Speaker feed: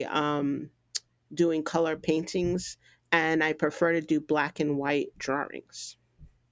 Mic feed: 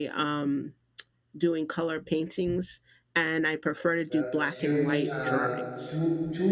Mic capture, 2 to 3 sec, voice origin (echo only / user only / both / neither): echo only